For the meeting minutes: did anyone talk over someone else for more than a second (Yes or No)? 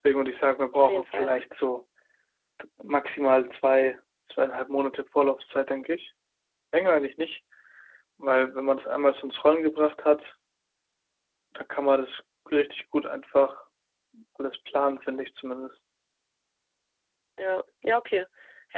No